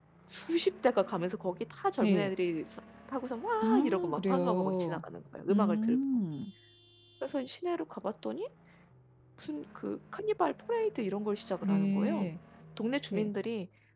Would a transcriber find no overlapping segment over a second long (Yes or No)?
No